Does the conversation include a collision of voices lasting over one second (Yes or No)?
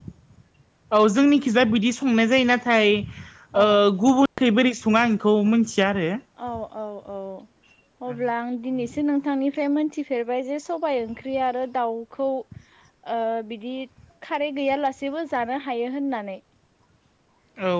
No